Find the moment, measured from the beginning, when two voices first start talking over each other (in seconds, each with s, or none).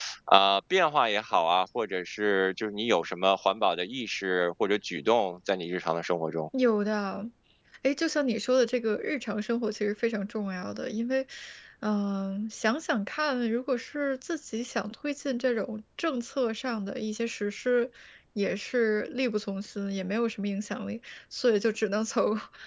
none